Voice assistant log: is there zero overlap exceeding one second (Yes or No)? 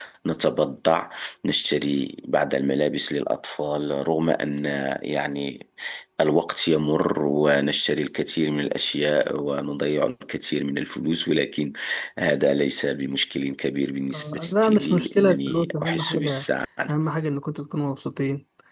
No